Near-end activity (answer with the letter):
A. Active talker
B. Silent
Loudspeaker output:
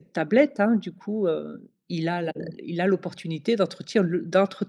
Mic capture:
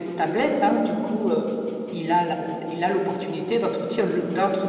B